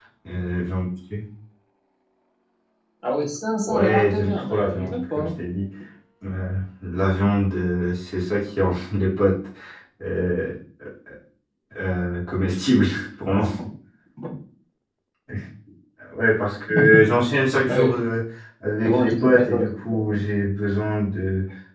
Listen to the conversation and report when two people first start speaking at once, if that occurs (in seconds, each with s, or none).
3.6 s